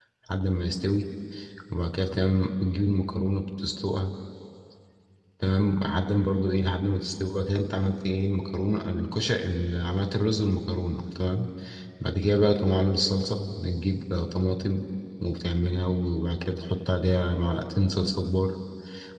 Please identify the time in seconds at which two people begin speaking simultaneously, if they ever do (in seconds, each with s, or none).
none